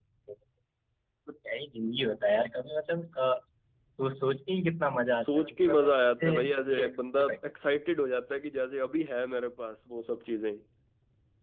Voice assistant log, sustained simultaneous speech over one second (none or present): present